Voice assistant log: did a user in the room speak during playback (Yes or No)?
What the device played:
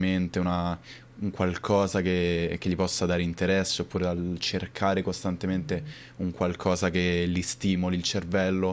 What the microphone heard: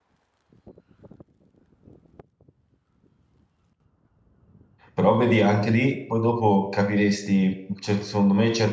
Yes